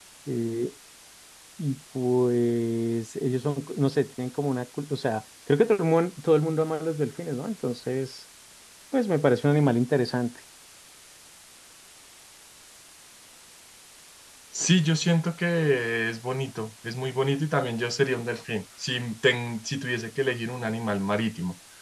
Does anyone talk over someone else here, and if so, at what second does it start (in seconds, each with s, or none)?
none